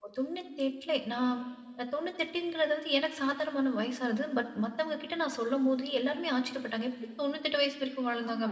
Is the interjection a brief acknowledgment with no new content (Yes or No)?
No